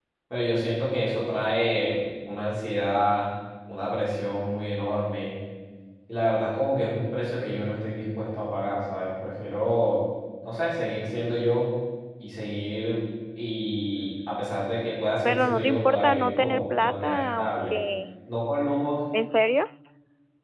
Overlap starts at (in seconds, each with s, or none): 15.2 s